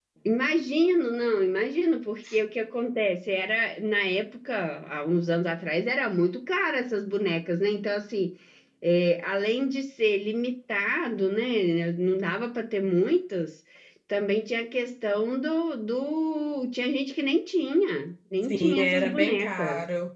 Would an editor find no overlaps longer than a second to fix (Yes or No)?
No